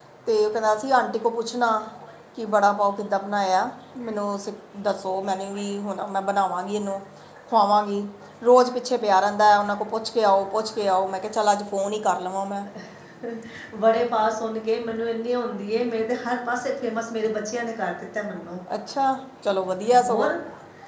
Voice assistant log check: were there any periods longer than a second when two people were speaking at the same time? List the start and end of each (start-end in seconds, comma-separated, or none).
none